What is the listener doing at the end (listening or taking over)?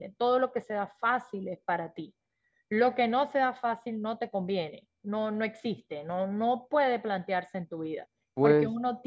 listening